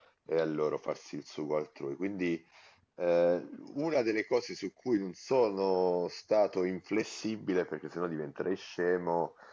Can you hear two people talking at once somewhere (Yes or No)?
No